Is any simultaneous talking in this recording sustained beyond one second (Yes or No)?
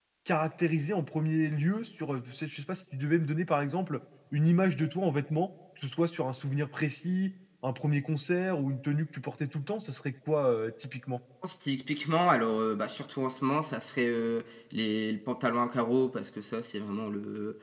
No